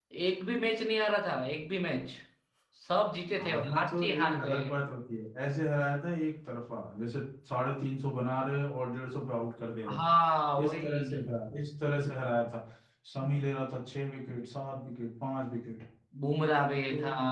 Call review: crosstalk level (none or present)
present